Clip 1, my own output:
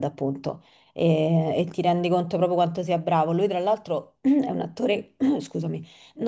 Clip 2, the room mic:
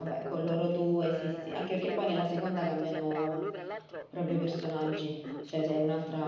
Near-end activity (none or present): present